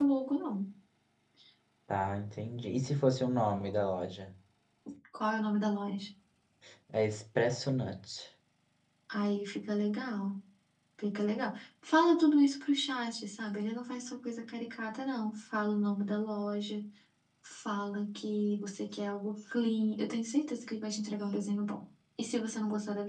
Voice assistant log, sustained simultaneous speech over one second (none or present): none